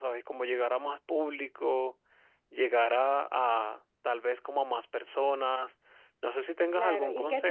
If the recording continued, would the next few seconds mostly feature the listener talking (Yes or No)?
Yes